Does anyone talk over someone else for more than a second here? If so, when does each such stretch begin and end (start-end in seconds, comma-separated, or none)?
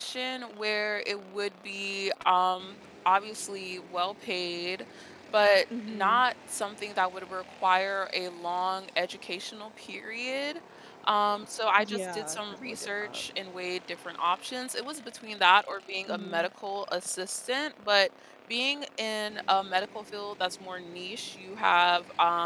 11.8-13.2